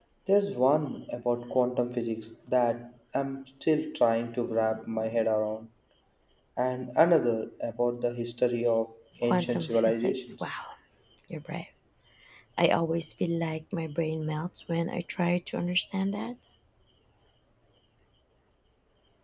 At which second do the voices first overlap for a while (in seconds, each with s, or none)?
9.2 s